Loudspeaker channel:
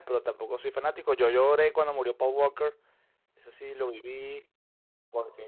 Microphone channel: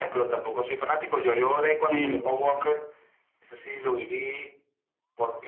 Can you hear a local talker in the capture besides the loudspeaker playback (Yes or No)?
Yes